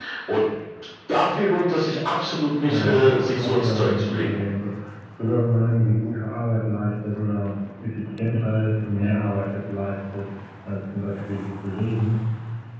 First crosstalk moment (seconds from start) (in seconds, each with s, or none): 2.6 s